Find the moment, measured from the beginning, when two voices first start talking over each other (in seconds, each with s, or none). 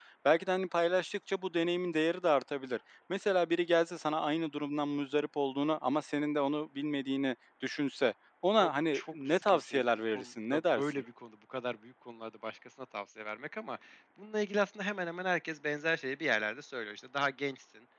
8.6 s